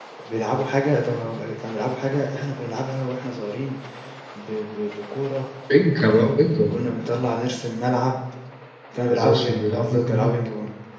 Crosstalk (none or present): present